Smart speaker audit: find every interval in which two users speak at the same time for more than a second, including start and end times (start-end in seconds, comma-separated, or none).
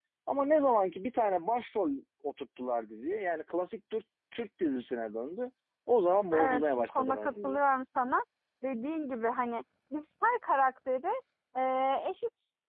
6.4-7.6